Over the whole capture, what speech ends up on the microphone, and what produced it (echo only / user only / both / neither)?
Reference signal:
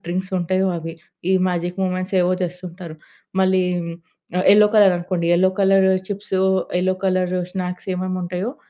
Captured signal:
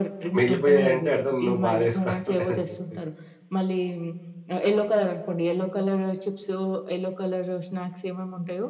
both